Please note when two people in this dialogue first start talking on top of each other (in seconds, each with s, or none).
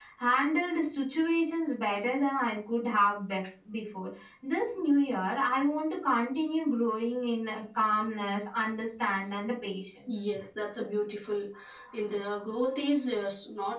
none